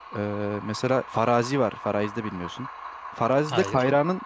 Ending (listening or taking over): listening